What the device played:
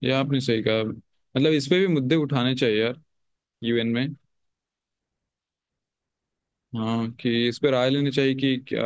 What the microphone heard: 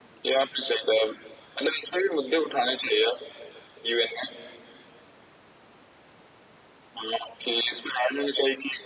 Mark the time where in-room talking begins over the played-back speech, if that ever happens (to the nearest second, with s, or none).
none